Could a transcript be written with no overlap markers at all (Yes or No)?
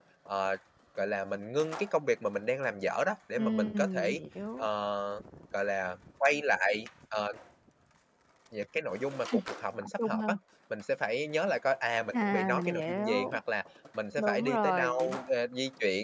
No